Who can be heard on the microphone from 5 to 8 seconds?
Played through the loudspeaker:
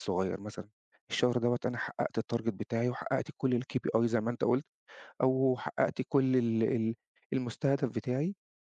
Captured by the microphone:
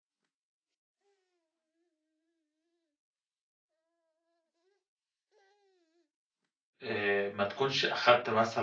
user only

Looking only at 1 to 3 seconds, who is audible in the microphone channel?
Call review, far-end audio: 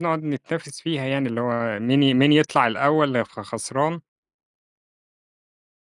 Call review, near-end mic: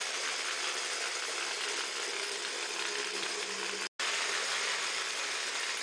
neither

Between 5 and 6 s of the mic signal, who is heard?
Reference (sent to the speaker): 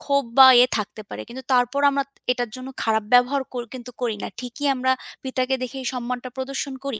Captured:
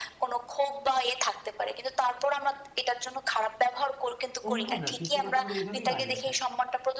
both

